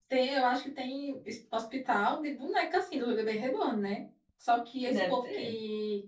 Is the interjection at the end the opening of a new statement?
No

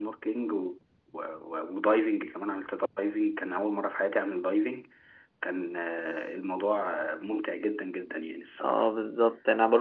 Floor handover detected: Yes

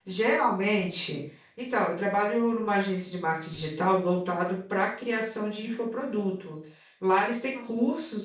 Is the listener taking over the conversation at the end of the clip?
No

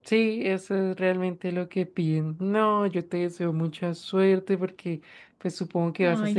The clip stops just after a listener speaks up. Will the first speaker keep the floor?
Yes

